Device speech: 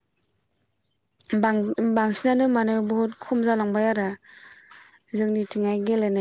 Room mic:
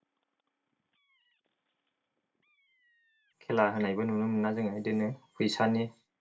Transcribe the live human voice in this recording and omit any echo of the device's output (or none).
खेला होनायबो नुनो मोनोना जोङो बिदिनो फैसानि।